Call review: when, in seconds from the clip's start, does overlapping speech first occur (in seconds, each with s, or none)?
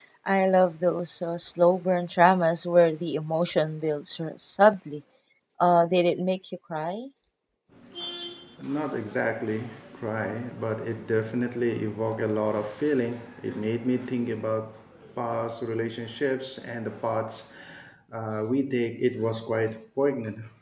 none